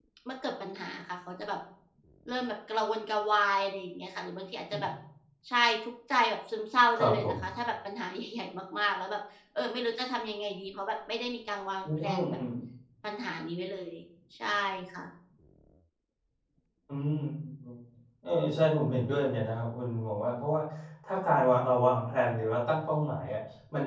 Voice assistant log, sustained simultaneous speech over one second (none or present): none